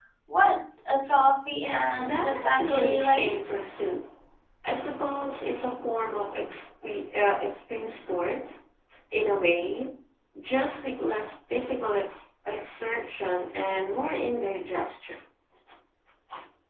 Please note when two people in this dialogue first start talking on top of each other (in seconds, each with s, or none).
1.6 s